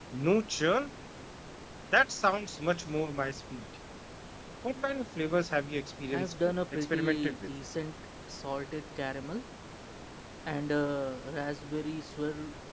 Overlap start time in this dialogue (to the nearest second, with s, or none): 6 s